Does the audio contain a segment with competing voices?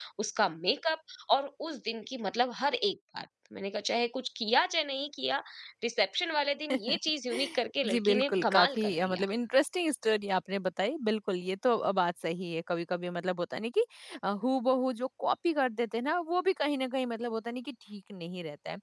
Yes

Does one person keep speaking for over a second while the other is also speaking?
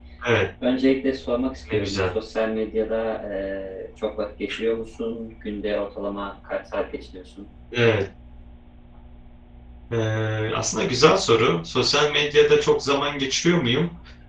No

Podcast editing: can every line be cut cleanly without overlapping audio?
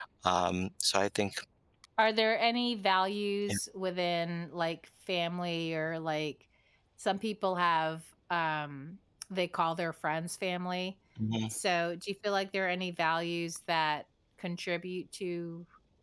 Yes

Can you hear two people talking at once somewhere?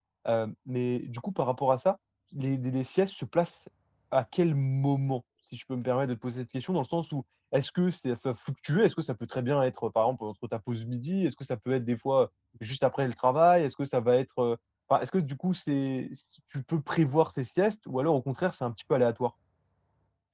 No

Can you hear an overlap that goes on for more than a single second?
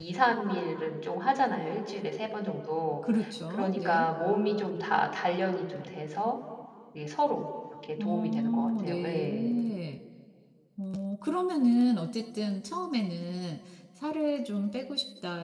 Yes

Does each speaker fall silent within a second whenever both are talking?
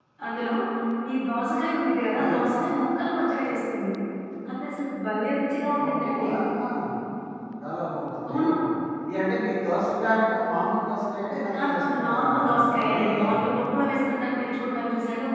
No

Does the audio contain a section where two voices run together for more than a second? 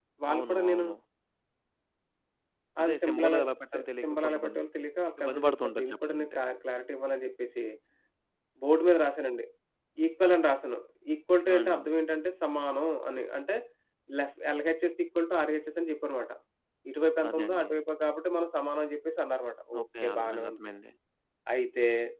Yes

